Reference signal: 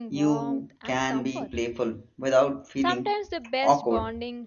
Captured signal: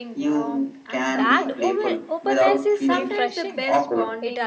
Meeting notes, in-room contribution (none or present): present